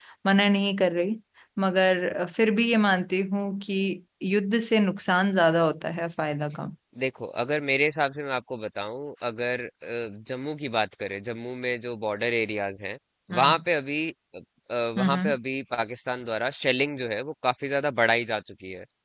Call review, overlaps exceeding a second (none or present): none